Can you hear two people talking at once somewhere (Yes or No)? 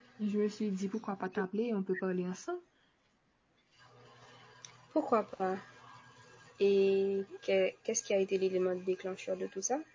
No